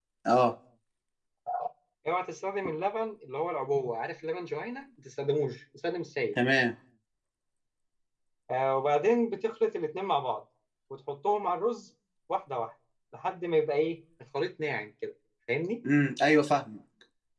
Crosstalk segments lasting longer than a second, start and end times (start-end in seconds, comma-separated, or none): none